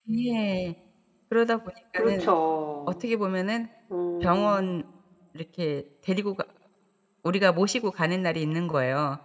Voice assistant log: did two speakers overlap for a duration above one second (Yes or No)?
No